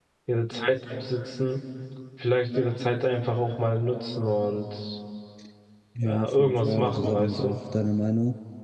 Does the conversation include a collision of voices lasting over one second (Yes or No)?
Yes